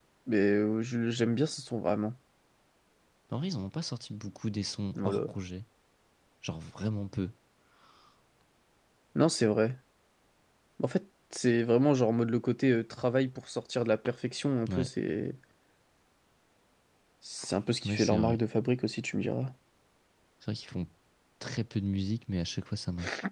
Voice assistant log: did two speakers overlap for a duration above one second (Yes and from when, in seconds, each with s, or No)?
No